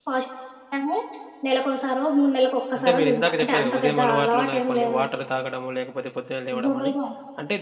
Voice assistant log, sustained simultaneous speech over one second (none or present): present